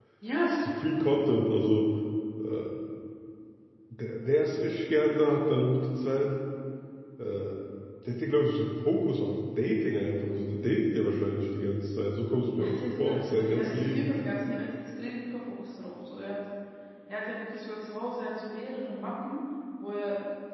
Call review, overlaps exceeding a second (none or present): present